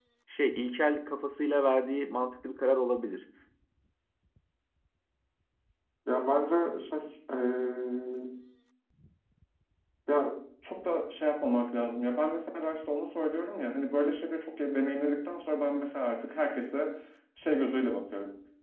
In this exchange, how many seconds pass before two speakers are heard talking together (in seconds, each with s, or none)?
none